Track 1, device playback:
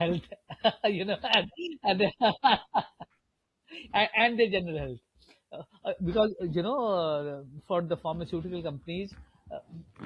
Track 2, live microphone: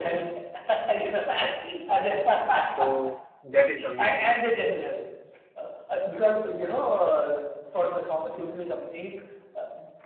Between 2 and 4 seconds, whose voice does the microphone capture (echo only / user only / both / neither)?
both